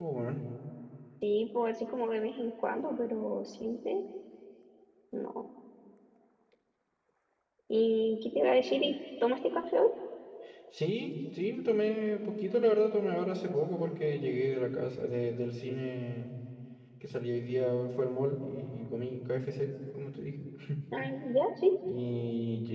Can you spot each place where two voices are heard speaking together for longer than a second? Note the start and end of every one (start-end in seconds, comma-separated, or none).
none